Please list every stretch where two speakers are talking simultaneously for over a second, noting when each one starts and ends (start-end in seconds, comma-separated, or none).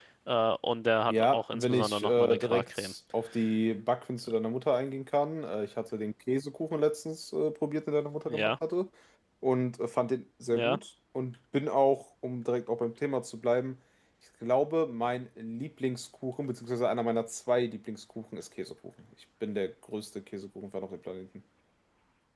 1.1-2.9